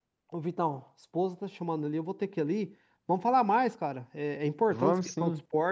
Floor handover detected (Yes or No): No